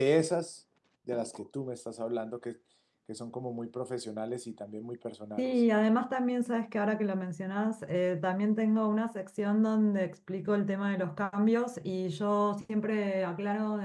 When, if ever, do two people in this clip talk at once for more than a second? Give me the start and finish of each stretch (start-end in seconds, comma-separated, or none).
none